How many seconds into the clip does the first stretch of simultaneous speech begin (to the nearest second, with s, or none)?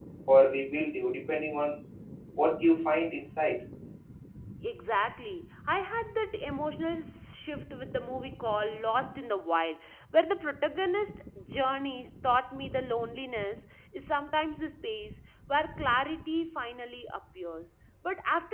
none